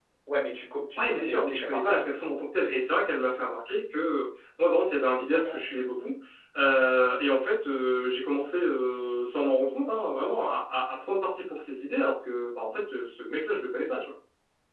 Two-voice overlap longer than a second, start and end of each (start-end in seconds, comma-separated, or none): 1.0-2.3